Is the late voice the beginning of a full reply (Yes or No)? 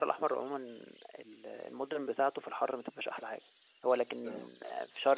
No